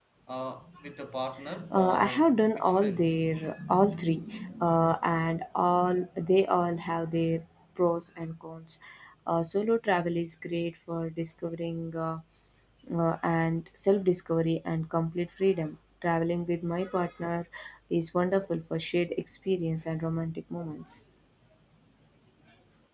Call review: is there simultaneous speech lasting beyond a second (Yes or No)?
Yes